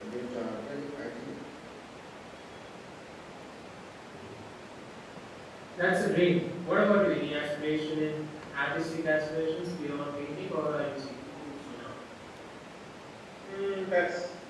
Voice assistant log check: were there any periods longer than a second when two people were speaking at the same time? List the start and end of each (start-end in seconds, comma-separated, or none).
none